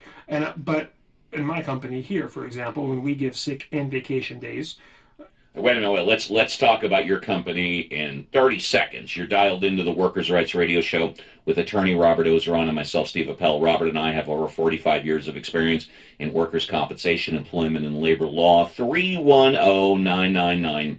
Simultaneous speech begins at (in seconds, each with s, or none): none